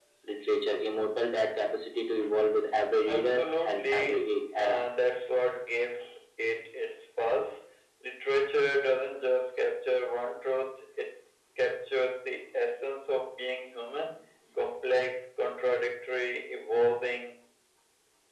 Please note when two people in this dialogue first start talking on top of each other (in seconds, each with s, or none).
3.0 s